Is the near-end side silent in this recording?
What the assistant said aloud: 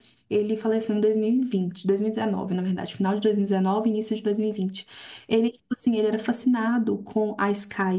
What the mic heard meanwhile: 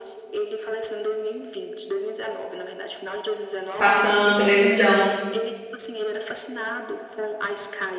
No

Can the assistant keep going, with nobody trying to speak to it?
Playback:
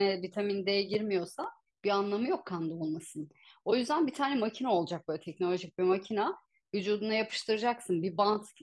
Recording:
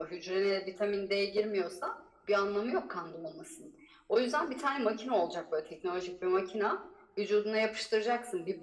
Yes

